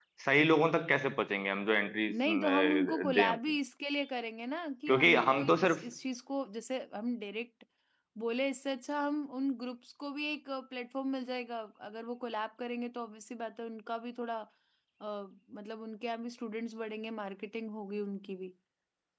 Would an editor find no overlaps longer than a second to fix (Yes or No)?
No